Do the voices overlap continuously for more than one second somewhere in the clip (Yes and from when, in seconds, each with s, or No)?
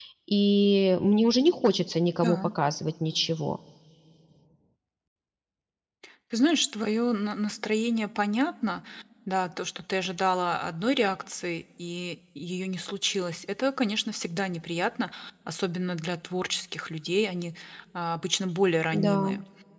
No